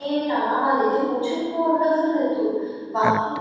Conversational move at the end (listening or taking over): listening